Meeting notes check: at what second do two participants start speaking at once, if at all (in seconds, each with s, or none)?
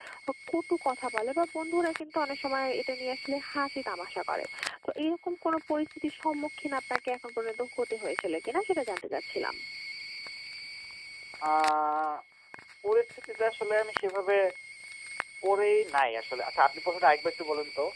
none